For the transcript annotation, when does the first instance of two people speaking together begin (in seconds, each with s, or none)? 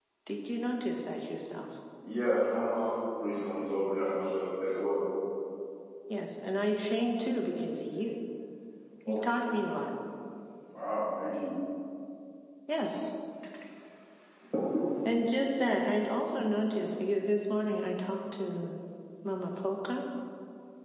none